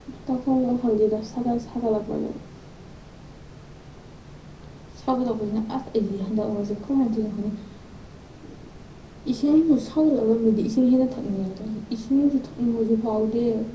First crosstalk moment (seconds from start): none

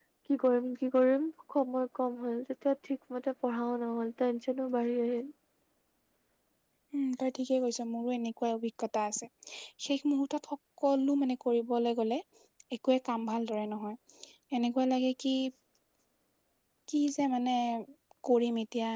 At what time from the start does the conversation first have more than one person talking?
none

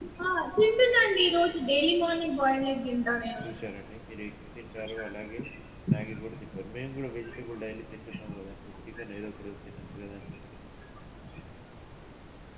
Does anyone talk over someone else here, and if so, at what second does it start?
none

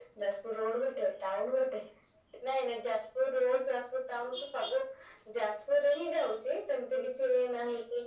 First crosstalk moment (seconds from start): none

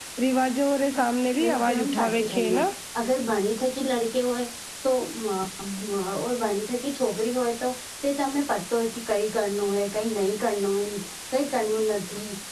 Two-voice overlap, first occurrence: 1 s

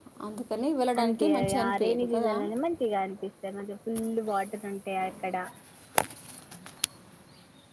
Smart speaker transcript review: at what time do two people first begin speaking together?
1 s

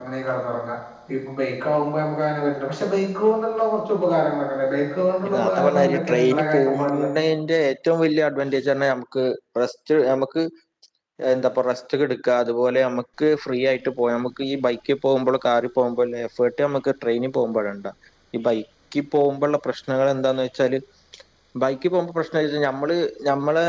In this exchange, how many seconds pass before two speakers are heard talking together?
5 s

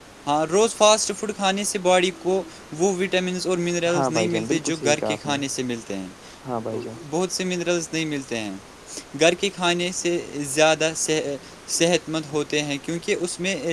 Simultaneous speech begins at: 4 s

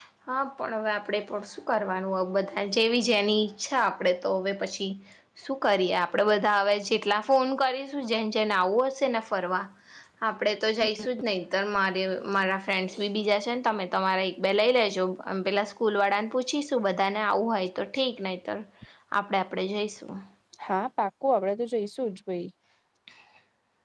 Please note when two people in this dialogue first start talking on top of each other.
none

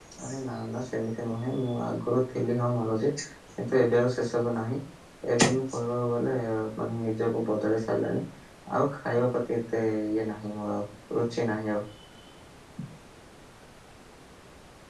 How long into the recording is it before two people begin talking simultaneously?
none

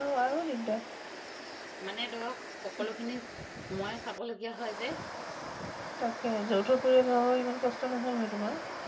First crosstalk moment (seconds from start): none

